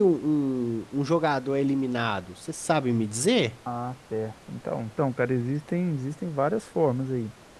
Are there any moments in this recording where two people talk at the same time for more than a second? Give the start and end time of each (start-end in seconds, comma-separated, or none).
none